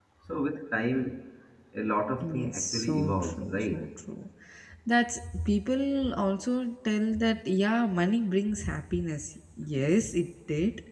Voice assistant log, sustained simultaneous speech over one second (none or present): present